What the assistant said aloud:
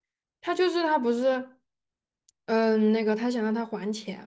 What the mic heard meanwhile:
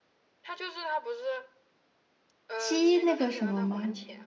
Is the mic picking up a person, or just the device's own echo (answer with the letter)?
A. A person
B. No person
A